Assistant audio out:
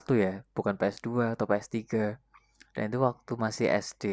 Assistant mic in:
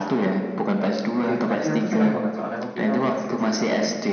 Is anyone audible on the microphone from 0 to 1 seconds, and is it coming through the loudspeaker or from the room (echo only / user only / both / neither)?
echo only